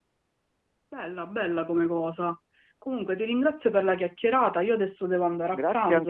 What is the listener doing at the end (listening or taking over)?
taking over